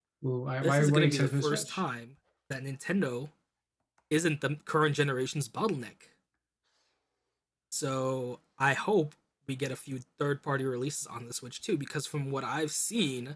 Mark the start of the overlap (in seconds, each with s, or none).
0.6 s